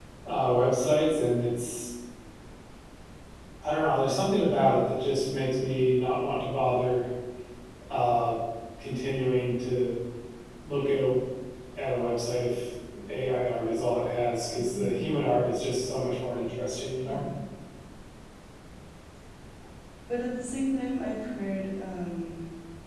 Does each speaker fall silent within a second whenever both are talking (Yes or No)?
Yes